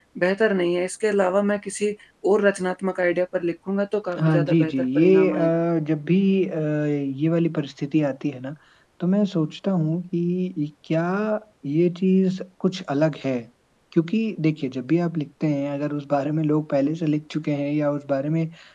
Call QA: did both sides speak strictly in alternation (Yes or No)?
No